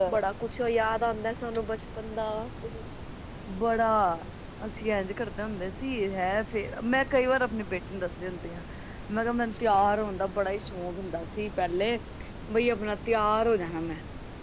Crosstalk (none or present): none